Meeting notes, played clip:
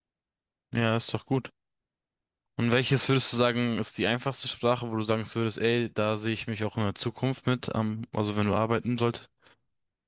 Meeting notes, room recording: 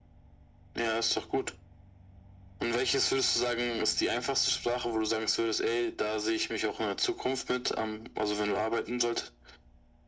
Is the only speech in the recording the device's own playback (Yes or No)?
Yes